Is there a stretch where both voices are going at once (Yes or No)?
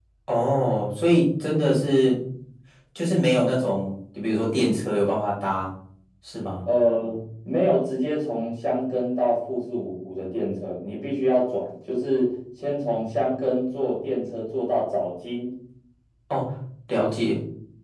No